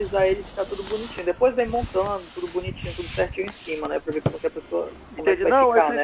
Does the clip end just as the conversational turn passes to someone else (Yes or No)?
Yes